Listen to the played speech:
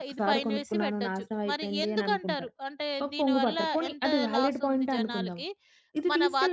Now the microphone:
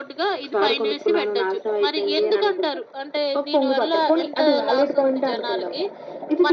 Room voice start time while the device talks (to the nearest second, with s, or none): none